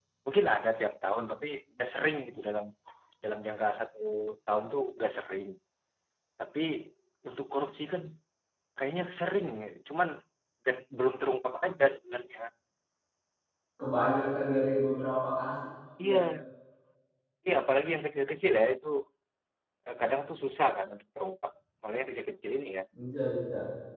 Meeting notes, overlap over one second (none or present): none